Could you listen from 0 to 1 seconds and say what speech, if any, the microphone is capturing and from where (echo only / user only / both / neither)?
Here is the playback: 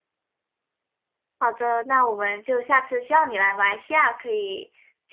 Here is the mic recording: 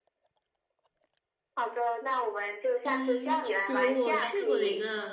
neither